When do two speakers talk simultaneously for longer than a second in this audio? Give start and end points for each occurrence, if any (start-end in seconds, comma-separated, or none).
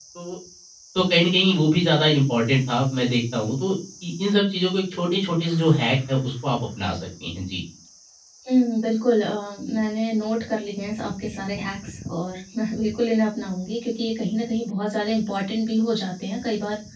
none